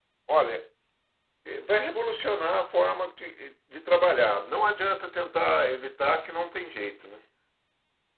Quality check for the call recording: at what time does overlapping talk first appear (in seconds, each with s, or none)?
none